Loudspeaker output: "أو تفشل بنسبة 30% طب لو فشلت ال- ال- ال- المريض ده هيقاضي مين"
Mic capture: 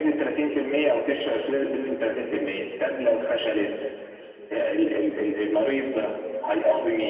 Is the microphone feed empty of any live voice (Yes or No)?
Yes